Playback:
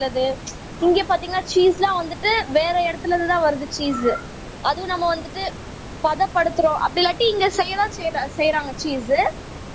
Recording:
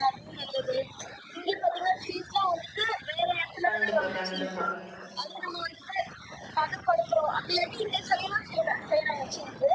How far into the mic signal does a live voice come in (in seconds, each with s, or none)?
3.7 s